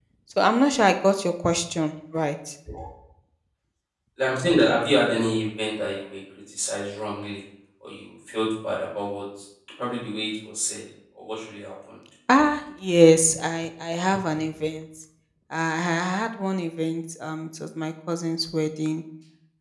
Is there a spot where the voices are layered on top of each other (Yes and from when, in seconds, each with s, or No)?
No